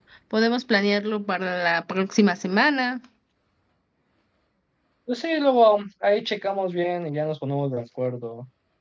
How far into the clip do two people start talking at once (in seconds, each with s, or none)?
none